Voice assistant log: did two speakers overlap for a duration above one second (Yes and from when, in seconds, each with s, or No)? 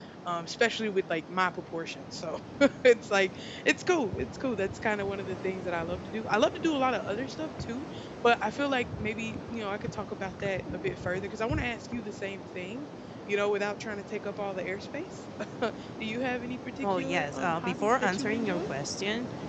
Yes, from 16.8 s